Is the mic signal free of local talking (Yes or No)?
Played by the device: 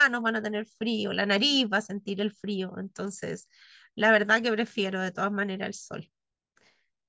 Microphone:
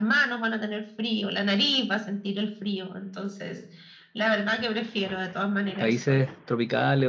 No